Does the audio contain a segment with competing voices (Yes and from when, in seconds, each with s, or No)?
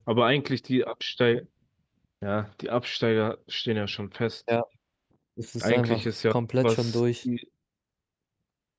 Yes, from 5.6 s